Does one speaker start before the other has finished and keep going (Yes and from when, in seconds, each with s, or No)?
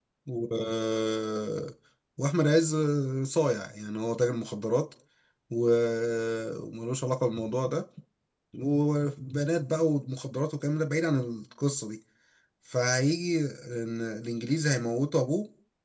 No